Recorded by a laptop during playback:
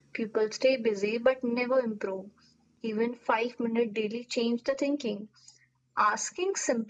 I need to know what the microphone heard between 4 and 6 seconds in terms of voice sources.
echo only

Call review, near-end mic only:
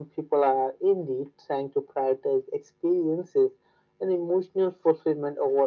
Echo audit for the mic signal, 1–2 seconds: echo only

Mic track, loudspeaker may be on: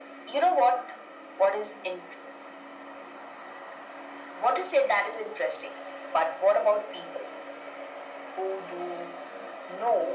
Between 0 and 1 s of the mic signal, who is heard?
echo only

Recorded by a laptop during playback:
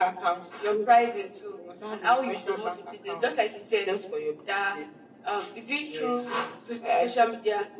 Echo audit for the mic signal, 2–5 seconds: echo only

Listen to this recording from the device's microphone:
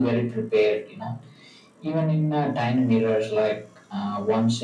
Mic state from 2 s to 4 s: echo only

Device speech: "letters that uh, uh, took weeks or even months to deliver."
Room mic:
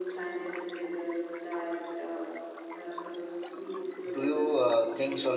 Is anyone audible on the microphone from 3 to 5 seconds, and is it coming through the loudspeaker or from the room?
both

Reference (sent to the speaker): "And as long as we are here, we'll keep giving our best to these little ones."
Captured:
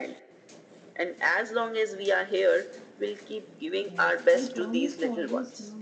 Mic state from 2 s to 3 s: echo only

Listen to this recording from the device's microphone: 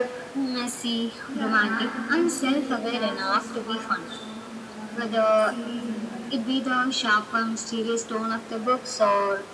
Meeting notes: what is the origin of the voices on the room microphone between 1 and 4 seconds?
both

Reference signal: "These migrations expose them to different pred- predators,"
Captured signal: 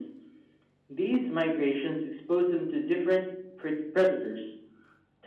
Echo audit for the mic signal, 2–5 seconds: echo only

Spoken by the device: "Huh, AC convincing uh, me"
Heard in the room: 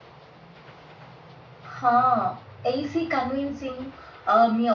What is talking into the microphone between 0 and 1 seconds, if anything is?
neither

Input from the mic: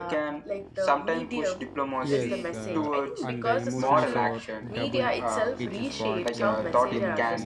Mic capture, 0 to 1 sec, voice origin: echo only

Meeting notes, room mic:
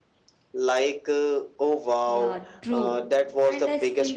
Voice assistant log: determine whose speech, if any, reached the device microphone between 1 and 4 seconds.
both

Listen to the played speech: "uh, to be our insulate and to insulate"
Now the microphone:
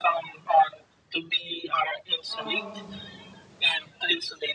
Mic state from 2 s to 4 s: both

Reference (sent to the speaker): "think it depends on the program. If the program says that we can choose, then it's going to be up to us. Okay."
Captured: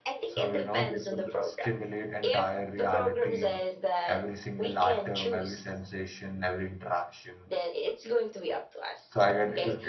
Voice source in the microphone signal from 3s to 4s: both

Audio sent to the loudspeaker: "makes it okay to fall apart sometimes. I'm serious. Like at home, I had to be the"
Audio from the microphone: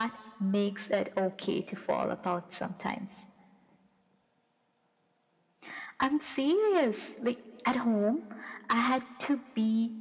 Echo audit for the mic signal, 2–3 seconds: echo only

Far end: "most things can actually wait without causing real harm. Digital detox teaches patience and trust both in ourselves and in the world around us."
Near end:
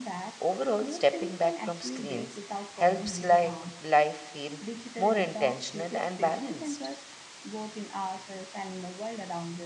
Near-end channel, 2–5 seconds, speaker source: both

